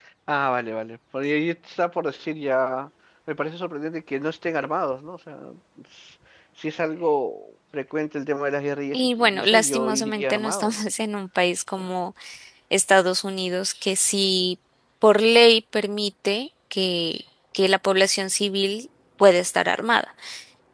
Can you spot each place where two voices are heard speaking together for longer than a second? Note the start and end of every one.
8.9-10.8

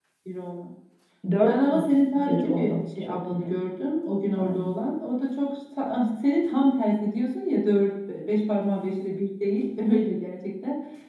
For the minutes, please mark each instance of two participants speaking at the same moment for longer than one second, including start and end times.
1.4-3.5

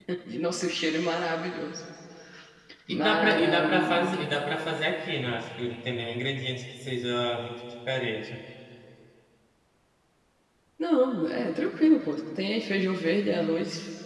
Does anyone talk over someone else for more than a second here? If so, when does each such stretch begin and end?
3.0-4.2

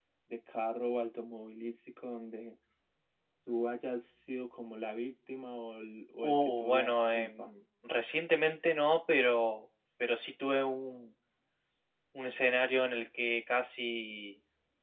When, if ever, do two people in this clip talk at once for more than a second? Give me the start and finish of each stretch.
6.2-7.5

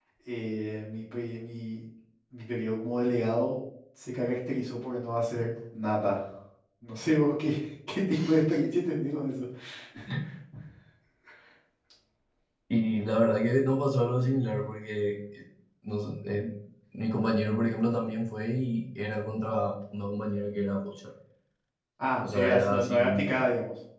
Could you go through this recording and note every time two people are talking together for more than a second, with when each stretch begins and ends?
22.2-23.4

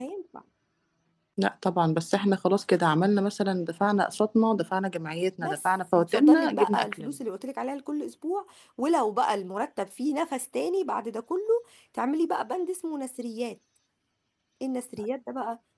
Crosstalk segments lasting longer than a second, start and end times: 5.4-7.2

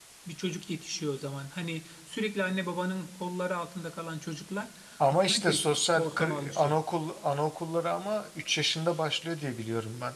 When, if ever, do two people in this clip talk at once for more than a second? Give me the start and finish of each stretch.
5.1-6.7

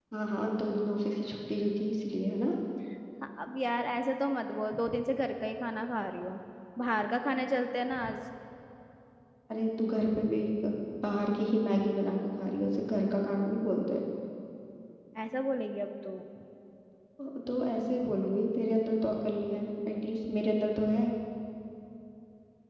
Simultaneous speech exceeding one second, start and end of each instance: none

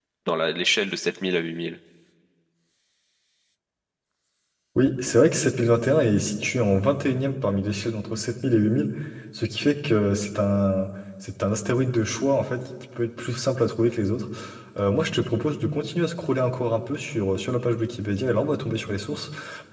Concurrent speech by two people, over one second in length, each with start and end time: none

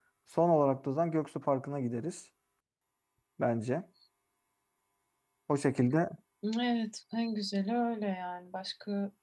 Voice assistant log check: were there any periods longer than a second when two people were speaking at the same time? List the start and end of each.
none

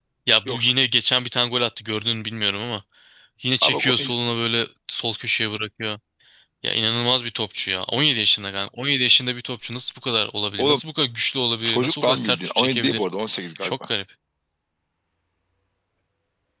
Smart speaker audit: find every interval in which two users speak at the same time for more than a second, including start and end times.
11.7-13.0

